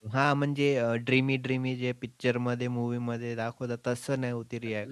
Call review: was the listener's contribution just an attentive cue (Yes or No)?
No